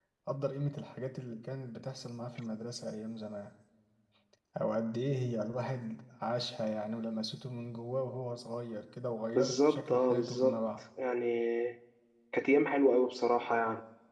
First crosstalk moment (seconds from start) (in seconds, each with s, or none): 9.3 s